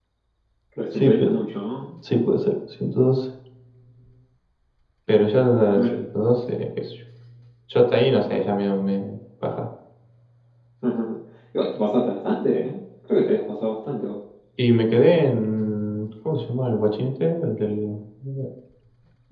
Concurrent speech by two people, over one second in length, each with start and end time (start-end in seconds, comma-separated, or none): none